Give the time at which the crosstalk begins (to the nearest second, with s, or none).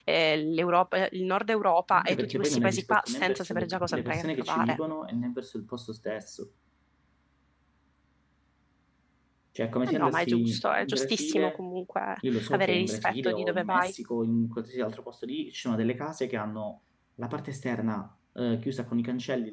2 s